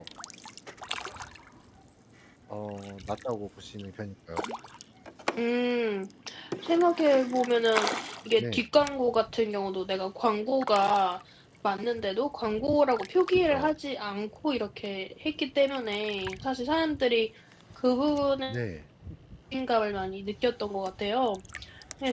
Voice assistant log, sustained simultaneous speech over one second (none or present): none